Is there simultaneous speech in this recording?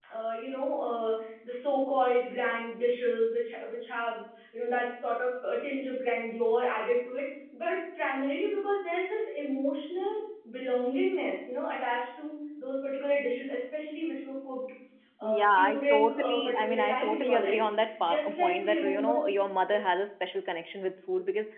Yes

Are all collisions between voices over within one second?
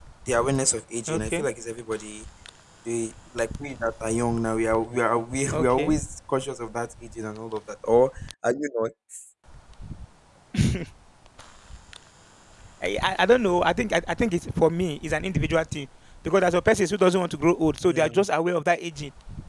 Yes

